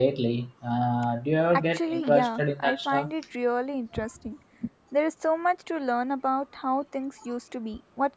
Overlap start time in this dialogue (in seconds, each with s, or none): 1.5 s